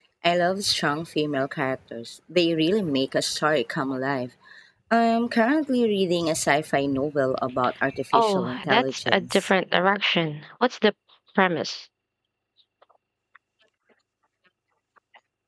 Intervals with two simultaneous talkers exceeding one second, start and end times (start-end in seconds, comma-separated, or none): 8.1-9.5